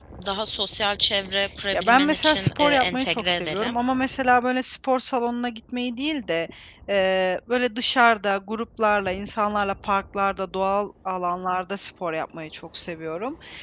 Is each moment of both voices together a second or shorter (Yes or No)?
No